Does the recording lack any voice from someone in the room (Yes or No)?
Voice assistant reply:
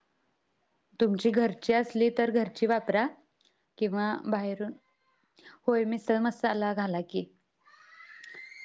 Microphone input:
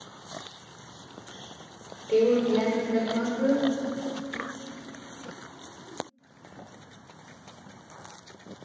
No